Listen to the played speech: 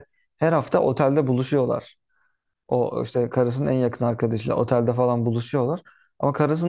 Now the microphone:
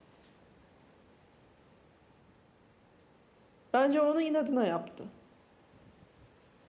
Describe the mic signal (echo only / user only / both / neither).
user only